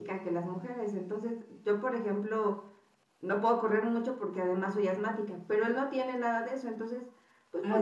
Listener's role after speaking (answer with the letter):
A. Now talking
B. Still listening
A